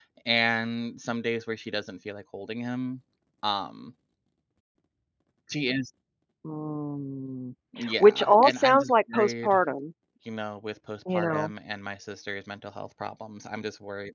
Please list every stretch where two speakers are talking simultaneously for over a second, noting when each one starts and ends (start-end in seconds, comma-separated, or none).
8.0-9.6